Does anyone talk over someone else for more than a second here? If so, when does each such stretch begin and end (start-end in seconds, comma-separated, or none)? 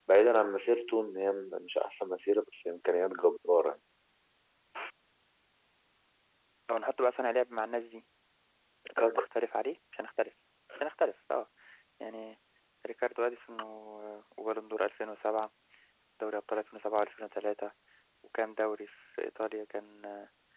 none